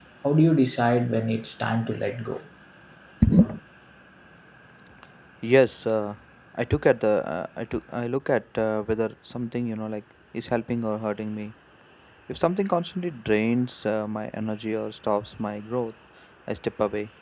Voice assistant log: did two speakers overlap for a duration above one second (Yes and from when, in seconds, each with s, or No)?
No